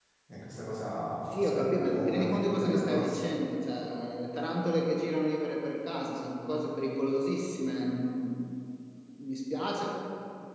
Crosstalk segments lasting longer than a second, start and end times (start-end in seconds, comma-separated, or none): 1.3-3.3